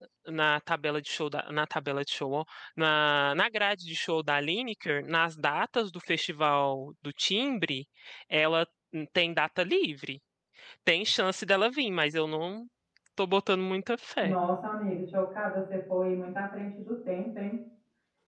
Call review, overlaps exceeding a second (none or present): none